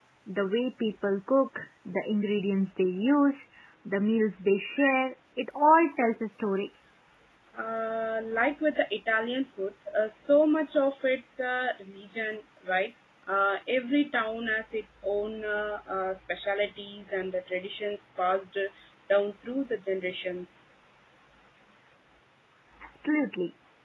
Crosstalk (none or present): none